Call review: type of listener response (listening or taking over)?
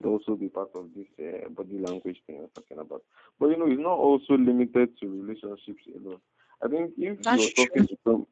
listening